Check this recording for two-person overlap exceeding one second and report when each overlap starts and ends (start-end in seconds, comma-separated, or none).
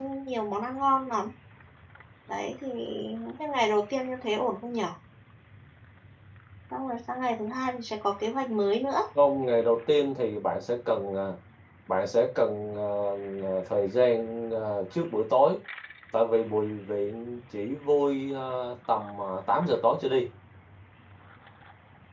none